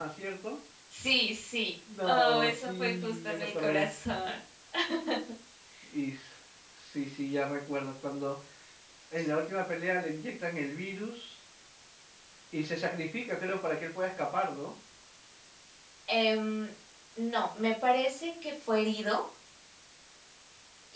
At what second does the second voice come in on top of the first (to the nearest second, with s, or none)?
2 s